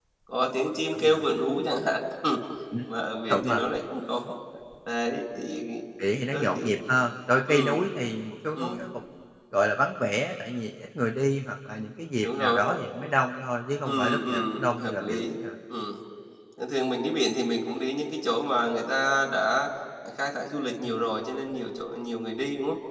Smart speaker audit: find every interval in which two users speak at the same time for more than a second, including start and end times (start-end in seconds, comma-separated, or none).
13.8-15.3